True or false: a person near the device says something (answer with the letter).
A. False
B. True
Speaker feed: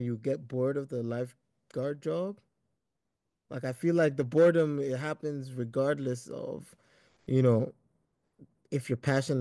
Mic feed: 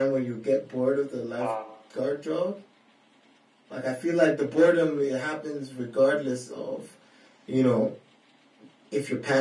B